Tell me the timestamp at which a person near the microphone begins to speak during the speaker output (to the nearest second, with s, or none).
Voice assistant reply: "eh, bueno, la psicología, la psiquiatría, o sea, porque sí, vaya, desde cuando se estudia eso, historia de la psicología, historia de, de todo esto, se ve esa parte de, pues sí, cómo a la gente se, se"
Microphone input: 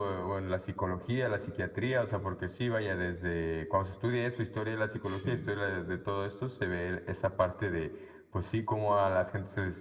5 s